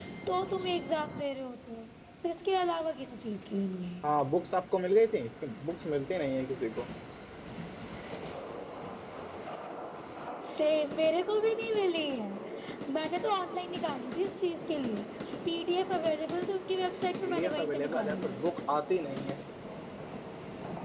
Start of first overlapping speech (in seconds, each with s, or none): 17.2 s